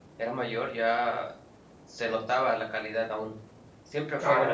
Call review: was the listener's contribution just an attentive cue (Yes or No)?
No